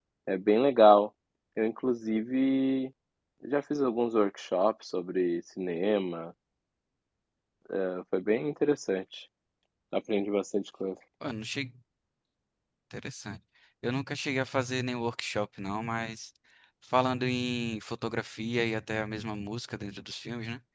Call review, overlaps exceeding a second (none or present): none